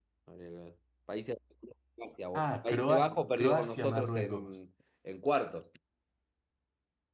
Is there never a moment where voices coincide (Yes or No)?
No